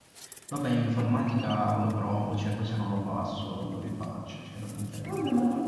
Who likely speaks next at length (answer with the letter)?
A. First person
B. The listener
B